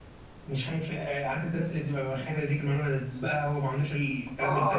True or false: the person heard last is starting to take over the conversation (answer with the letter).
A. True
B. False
A